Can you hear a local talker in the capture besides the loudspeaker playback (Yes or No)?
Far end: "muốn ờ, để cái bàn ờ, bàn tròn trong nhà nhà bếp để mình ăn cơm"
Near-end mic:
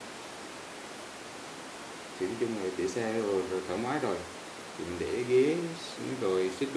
Yes